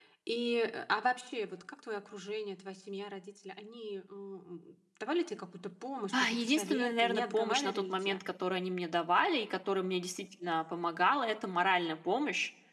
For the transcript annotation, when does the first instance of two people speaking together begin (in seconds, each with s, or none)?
6.3 s